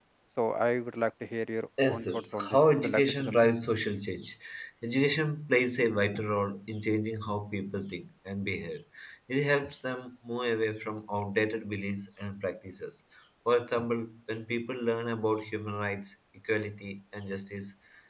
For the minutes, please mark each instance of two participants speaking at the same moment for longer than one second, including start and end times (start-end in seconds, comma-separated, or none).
1.9-3.5